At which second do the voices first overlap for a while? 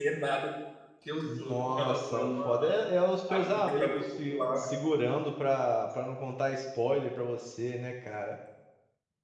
1.4 s

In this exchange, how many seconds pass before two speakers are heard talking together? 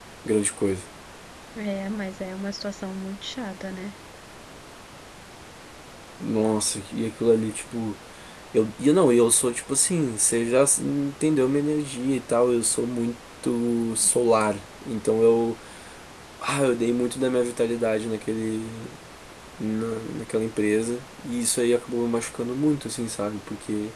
none

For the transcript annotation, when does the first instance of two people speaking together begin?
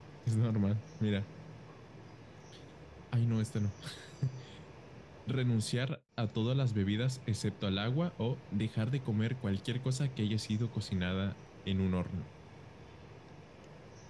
none

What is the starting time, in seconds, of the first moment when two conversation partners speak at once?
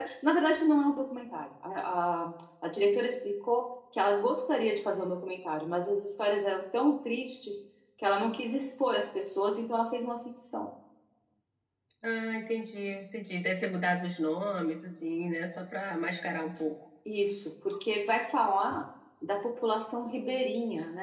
none

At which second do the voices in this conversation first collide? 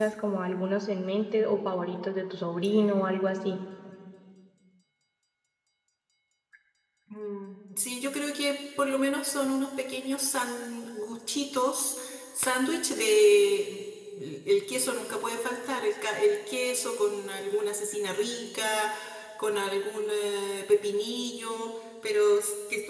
none

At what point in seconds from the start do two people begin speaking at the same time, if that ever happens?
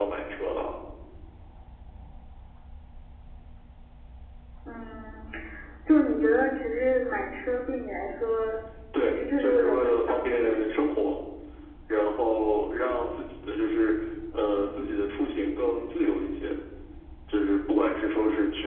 9.0 s

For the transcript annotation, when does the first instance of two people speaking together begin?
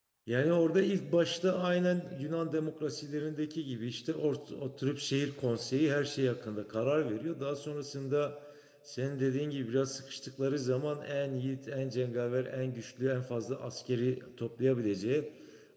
none

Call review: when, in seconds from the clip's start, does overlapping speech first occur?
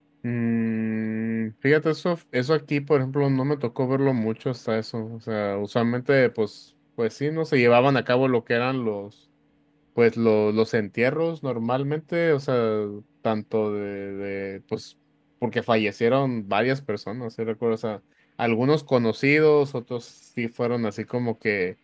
none

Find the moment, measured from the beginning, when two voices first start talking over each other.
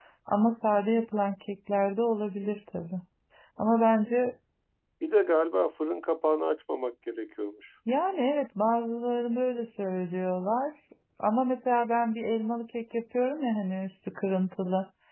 none

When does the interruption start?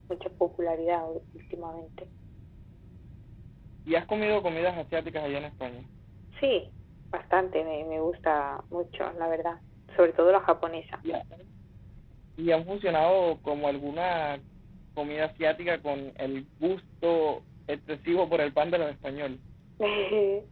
none

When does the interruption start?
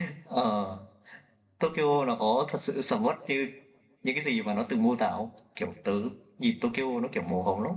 none

